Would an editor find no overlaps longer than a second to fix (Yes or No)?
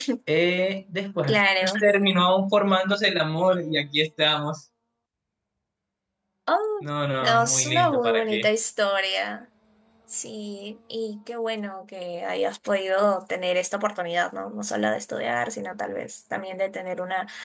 No